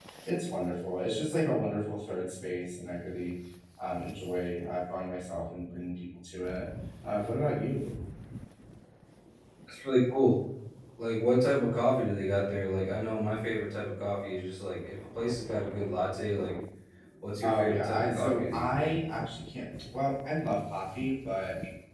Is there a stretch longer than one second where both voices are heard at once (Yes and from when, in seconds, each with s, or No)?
Yes, from 17.4 s